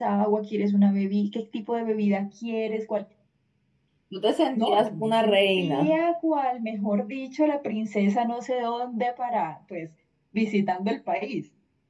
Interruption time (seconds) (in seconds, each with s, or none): 4.5 s